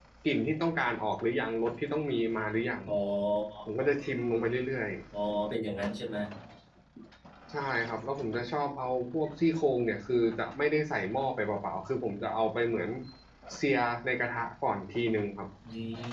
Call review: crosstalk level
none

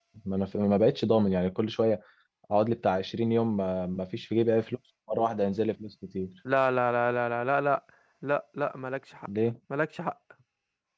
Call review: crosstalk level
none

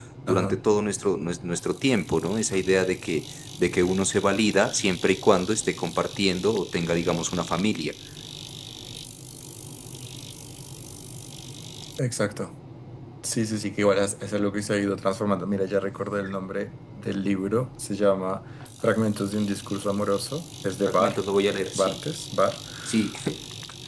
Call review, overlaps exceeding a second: none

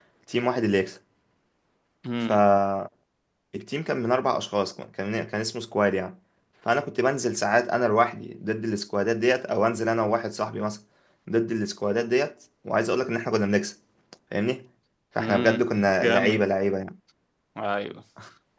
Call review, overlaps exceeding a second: present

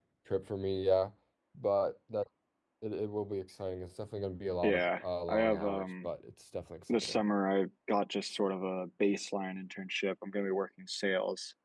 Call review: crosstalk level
present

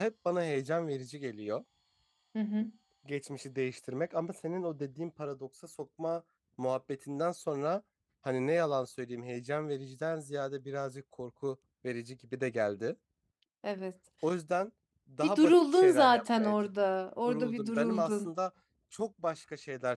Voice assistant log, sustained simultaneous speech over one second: present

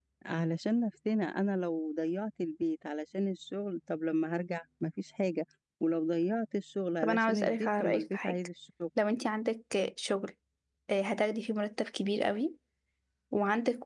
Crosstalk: present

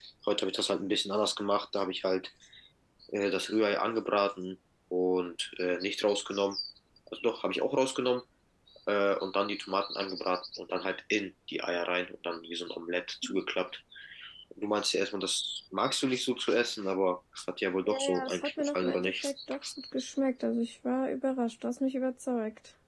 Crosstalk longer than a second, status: present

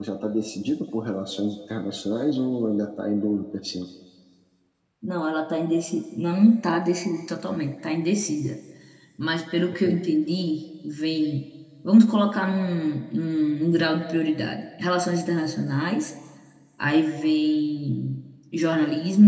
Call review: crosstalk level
none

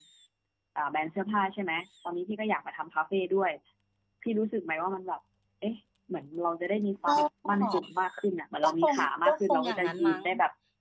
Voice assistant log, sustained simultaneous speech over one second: present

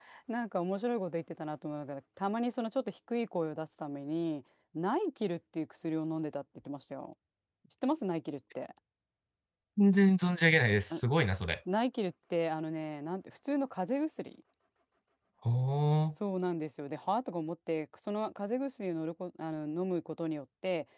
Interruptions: none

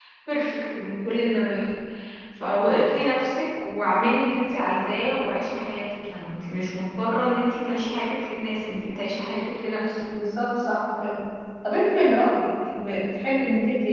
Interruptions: none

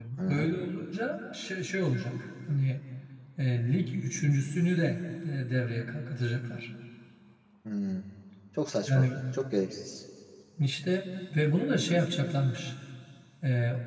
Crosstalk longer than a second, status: none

